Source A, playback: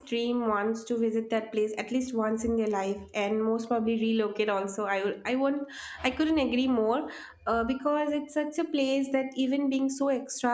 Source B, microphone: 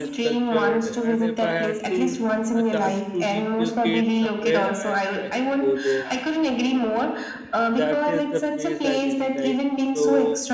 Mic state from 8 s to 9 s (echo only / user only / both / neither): both